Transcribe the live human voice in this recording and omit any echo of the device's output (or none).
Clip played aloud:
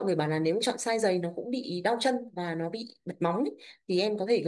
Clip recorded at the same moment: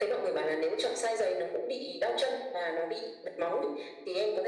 none